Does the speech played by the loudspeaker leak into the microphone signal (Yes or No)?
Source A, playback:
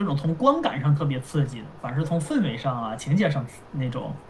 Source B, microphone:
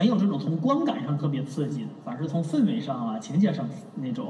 Yes